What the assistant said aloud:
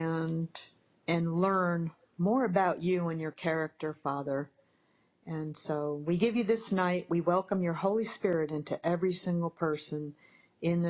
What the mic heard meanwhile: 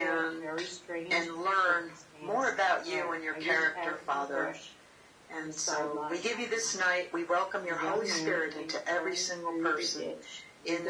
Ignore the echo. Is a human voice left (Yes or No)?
Yes